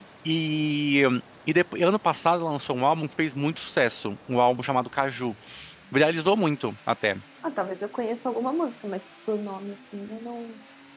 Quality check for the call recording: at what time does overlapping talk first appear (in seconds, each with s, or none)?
none